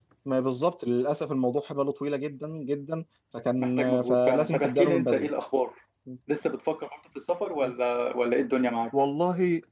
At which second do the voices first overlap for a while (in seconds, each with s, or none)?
3.6 s